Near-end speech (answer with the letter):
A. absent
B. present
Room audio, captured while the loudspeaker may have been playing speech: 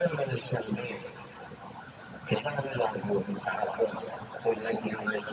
A